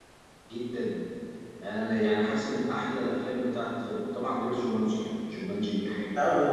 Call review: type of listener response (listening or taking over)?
taking over